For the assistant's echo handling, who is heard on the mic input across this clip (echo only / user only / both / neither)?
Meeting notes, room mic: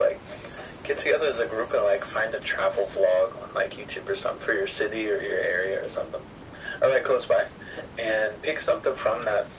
echo only